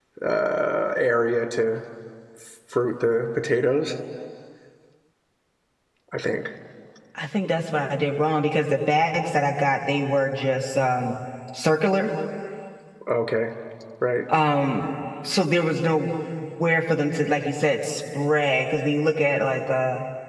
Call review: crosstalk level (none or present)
none